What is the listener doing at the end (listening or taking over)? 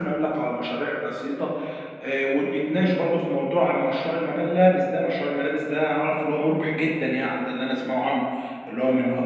listening